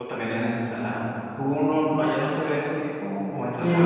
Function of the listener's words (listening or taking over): taking over